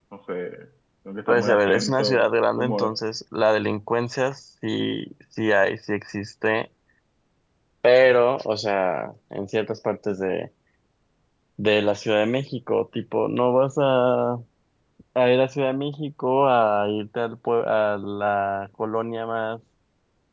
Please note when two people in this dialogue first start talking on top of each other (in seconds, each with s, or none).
1.3 s